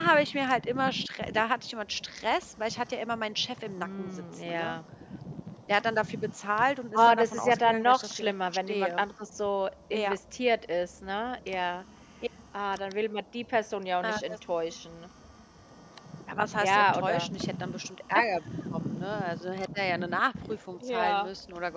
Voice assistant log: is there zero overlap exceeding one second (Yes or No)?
No